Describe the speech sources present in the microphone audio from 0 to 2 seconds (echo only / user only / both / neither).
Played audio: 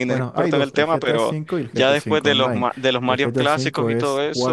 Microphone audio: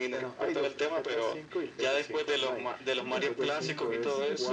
echo only